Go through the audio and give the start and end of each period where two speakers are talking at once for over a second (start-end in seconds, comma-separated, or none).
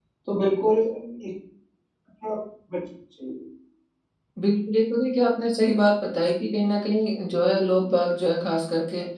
none